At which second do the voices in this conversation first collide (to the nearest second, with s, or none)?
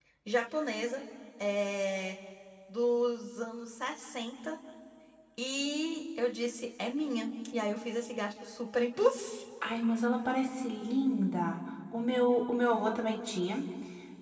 none